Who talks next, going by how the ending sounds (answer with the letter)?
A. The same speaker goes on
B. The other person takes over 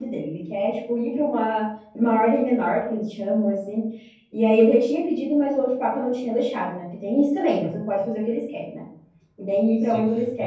B